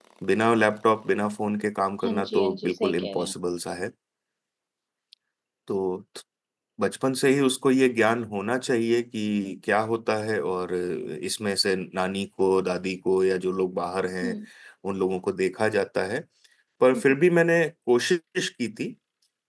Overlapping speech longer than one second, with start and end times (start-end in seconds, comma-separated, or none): 2.0-3.3